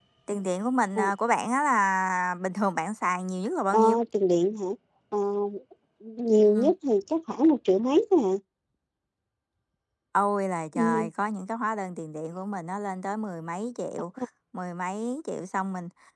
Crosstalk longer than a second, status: none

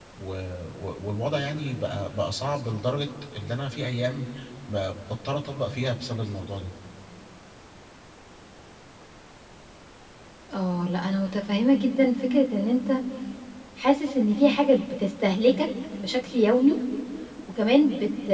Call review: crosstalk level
none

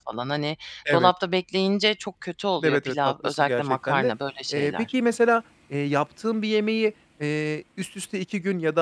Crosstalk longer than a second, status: present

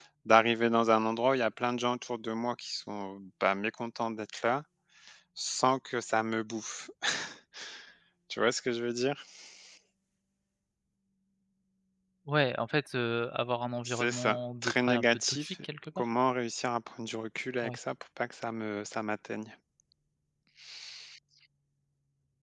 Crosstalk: present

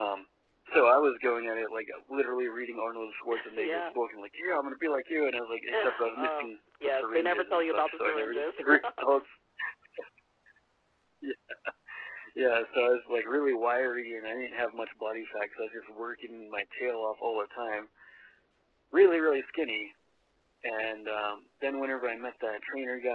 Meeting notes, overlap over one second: present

